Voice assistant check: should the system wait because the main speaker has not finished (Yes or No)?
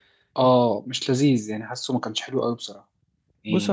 No